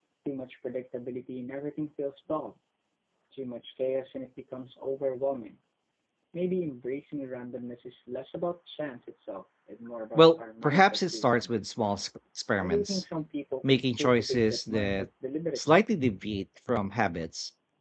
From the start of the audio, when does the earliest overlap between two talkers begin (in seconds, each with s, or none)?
10.2 s